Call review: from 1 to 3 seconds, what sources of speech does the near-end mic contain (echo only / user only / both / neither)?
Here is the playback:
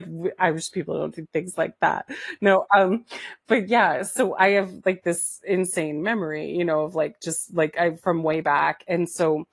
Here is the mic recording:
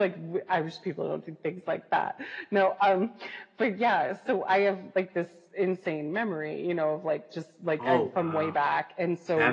echo only